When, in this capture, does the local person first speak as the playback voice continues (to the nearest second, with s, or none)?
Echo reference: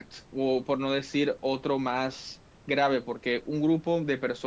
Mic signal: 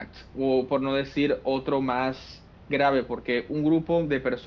none